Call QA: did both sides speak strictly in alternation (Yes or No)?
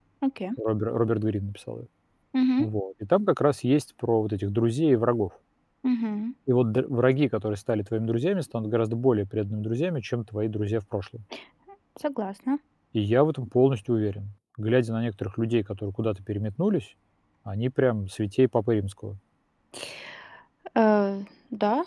Yes